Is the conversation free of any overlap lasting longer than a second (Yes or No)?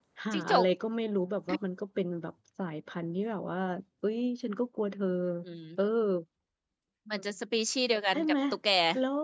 Yes